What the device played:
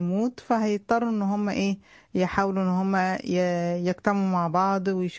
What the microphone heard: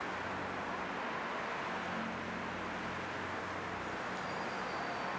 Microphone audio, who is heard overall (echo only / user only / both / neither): neither